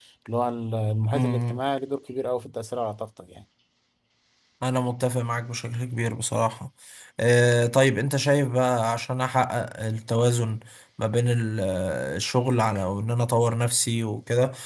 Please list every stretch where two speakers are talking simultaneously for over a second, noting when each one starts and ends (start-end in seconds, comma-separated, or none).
none